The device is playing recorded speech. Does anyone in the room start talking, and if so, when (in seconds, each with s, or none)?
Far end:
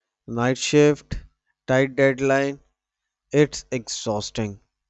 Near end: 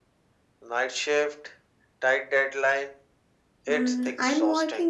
3.7 s